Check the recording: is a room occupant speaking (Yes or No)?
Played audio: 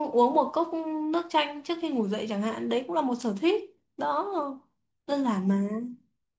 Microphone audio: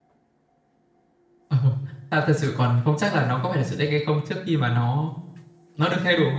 Yes